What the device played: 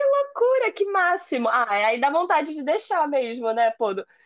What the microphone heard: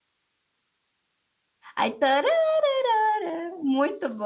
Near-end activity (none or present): present